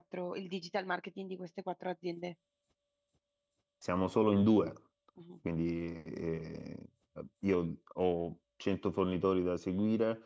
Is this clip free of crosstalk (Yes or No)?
Yes